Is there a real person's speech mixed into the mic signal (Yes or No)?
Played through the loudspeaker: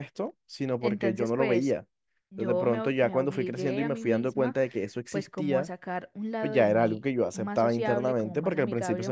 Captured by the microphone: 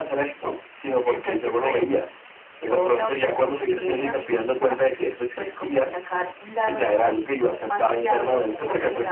No